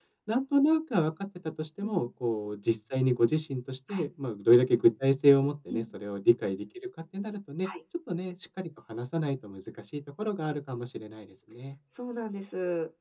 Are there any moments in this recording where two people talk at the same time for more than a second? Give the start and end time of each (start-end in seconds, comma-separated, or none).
none